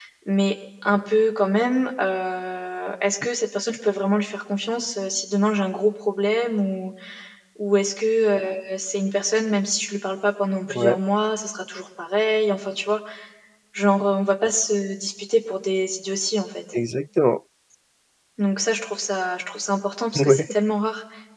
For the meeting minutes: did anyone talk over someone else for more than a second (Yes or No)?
No